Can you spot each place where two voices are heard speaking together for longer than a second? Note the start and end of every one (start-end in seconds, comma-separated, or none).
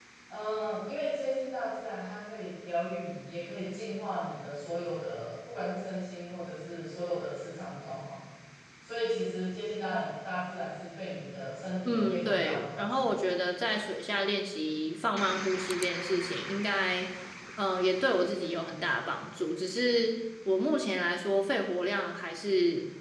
11.8-13.1